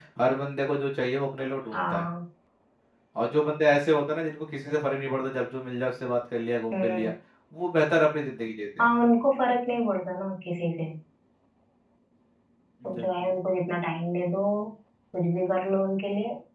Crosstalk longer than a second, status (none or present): none